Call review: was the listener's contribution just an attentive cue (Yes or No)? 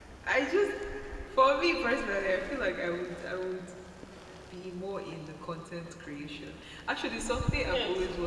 No